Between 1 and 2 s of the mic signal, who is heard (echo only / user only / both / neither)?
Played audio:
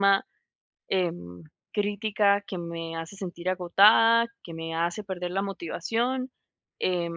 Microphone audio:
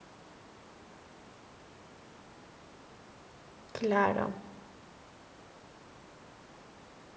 neither